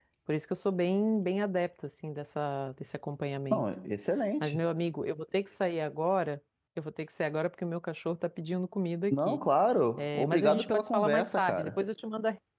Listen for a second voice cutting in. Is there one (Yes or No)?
Yes